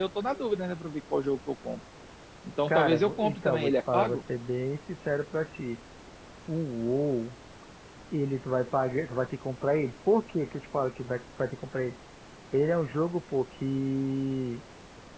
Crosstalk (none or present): present